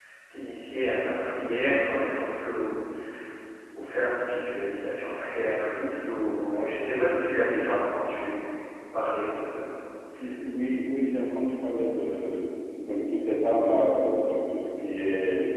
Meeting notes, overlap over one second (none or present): none